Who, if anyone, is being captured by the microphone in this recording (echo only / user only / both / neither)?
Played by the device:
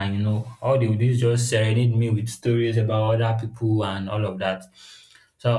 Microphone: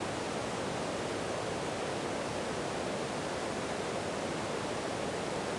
neither